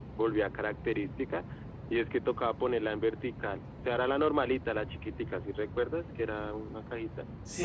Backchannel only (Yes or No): No